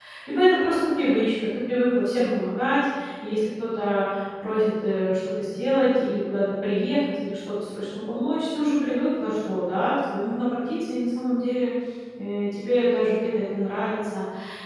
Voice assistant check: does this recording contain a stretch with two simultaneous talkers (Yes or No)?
No